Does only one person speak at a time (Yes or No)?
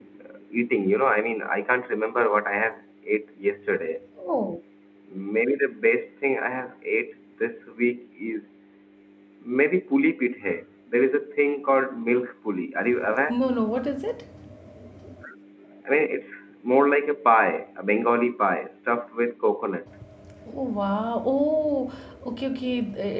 Yes